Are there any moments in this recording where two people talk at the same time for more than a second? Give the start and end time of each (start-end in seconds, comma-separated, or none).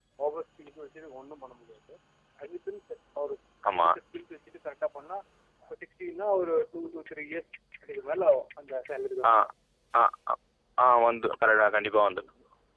none